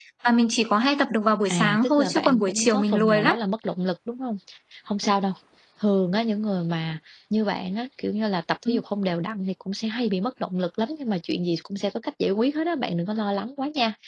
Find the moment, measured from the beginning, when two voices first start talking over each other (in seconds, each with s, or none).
1.5 s